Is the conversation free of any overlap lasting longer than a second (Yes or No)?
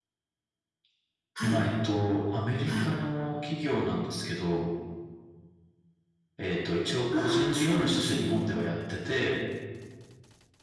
No